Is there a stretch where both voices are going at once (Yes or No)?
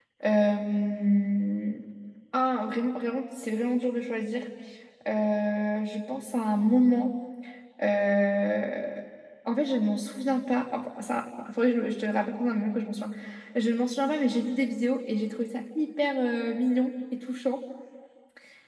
No